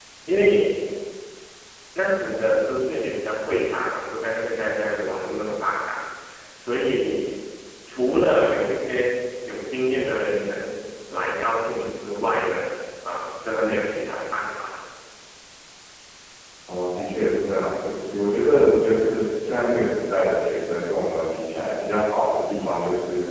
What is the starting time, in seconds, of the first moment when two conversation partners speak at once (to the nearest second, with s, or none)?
none